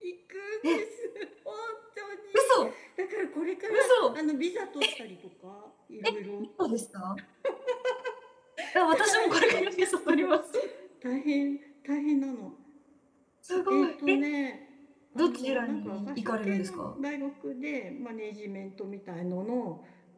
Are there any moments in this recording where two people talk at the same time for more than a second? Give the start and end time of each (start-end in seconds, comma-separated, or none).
8.9-10.3, 15.2-17.0